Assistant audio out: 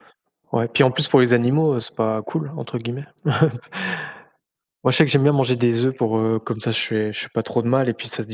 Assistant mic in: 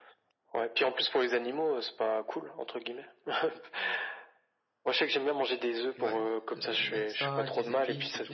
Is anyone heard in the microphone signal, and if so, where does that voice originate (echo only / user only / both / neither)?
both